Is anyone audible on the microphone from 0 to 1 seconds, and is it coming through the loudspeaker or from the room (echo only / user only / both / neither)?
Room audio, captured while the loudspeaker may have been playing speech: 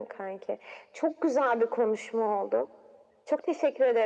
echo only